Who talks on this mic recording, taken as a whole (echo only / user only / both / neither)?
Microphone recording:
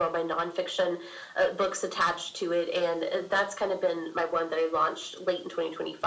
echo only